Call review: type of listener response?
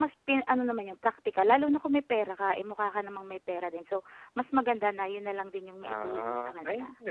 taking over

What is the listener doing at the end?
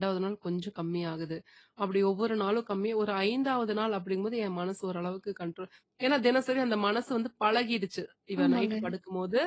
listening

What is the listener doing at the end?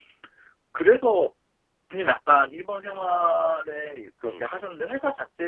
listening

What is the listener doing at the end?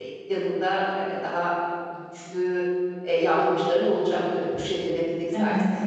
taking over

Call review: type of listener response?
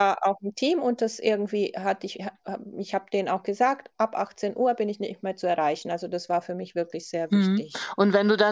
taking over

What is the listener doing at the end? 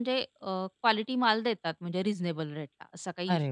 taking over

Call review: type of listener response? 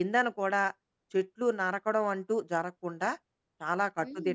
taking over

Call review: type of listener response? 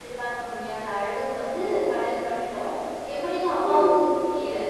listening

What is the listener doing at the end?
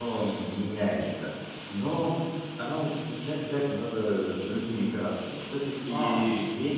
listening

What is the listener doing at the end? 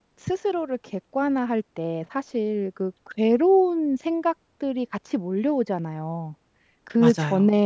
listening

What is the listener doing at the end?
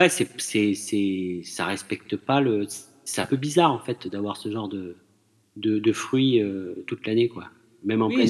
taking over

